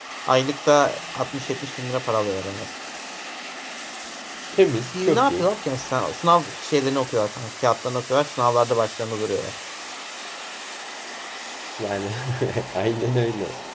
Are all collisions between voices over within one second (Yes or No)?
Yes